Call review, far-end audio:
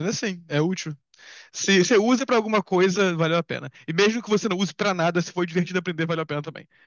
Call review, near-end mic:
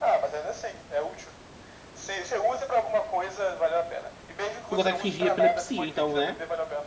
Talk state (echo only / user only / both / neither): both